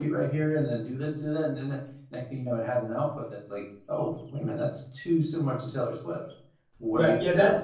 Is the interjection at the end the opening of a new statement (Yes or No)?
Yes